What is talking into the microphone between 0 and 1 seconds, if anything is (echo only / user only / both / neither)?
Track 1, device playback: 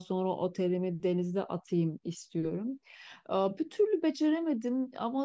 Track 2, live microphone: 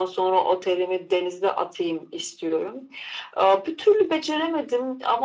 echo only